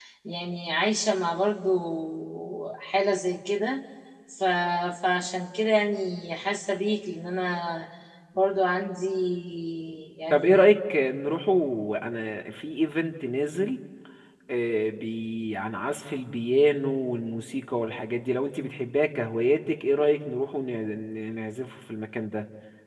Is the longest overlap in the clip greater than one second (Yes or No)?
No